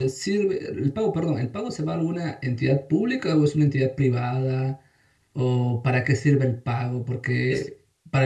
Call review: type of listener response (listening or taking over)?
listening